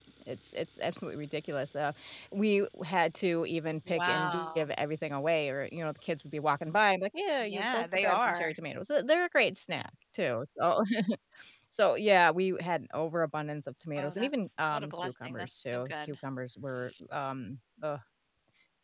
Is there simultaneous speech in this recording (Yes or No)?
Yes